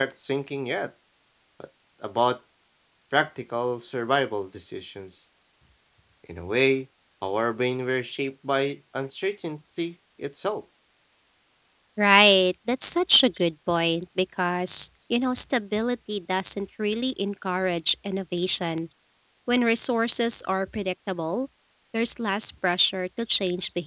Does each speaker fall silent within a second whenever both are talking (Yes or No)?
Yes